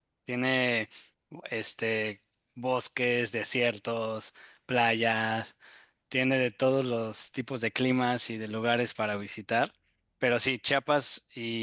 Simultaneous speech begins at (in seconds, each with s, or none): none